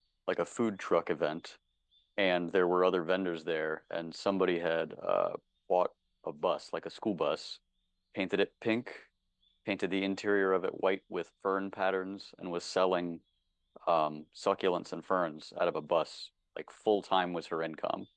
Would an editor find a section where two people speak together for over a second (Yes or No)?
No